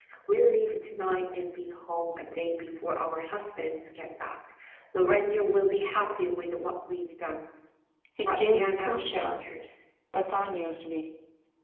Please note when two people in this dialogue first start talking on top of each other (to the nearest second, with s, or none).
8 s